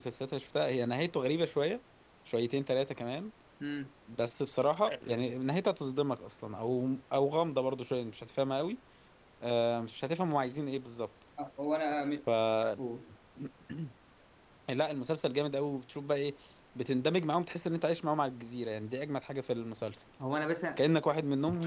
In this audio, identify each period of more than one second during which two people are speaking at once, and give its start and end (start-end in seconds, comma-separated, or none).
none